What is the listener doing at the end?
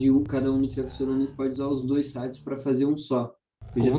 listening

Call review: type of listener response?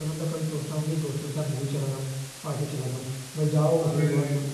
listening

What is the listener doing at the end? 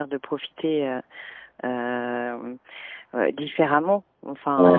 listening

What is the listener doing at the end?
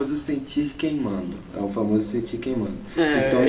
taking over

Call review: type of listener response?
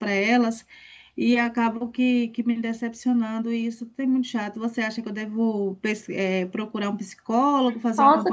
taking over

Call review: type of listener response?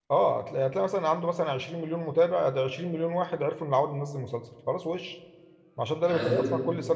listening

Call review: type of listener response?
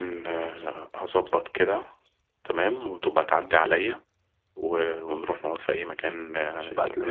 taking over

